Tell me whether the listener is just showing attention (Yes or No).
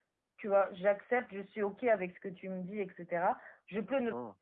Yes